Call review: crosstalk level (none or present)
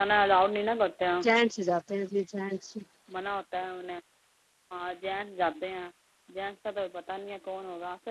none